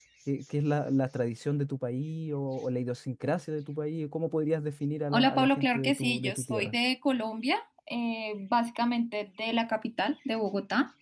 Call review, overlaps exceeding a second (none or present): present